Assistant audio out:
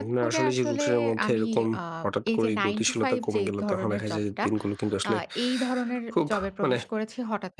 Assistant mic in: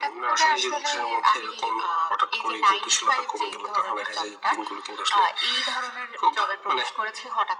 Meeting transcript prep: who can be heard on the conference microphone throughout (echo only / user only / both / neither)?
echo only